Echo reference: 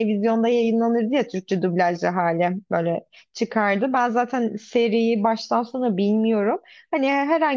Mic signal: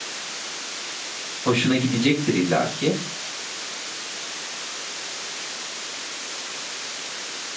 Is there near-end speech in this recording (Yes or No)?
Yes